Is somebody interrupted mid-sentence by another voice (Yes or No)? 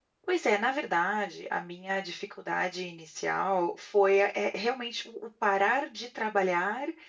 No